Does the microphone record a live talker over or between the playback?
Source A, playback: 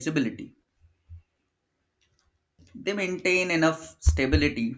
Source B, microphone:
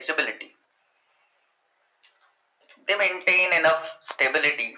No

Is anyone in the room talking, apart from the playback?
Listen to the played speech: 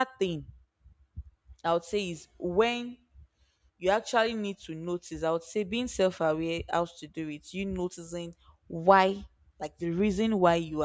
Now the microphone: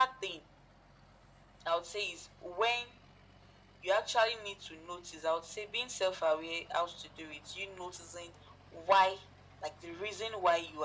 No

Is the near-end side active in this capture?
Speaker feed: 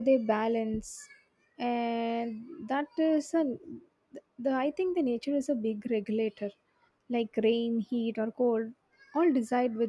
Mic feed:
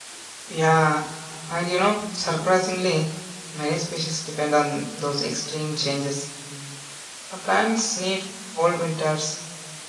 Yes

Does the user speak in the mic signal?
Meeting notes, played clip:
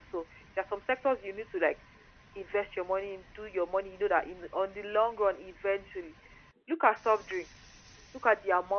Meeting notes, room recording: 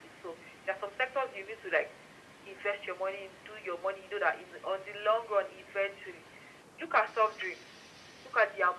No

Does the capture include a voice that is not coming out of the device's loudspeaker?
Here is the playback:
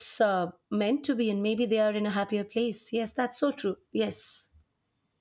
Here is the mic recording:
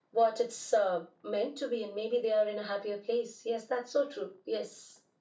No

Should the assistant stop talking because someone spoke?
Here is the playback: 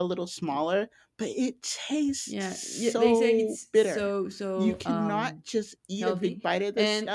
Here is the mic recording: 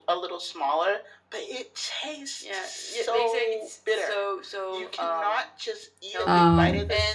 Yes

